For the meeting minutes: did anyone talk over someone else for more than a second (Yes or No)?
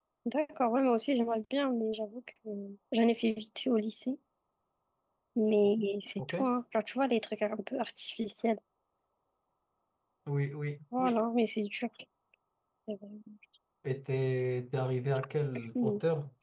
No